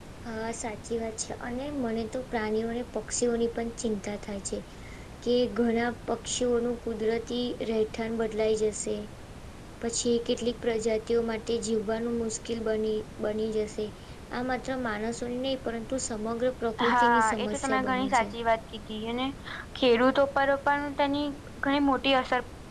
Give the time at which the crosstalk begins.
17 s

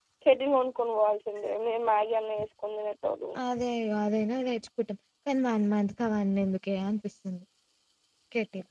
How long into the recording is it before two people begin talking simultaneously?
none

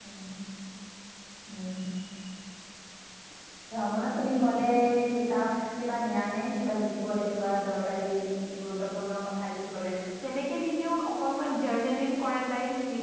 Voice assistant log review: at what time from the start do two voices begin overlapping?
none

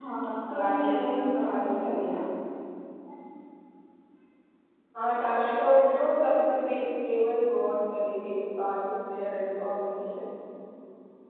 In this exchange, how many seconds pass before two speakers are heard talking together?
1 s

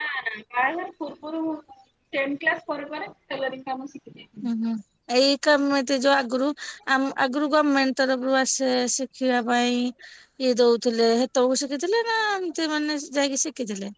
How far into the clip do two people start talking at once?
none

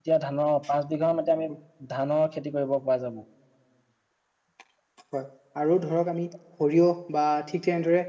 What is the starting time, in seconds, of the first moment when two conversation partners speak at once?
none

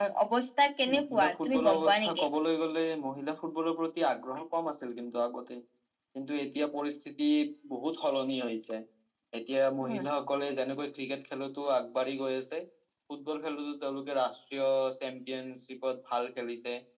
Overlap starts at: 1 s

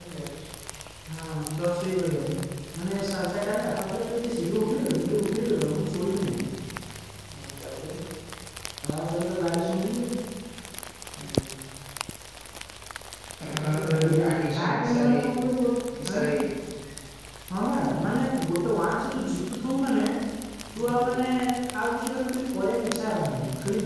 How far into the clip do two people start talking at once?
14 s

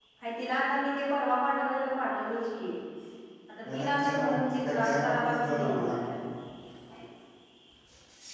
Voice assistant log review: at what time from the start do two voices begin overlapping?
4 s

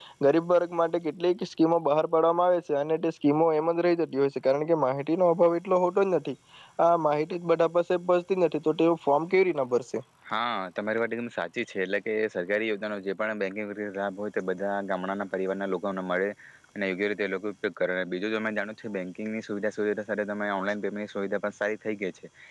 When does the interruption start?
none

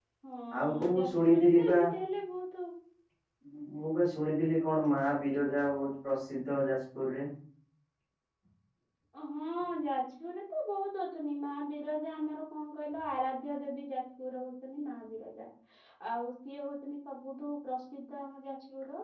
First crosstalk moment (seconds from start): 1 s

